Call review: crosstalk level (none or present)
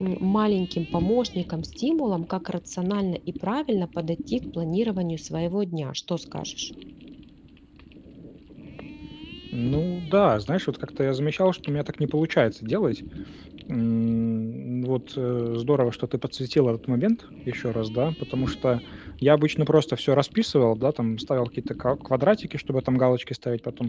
none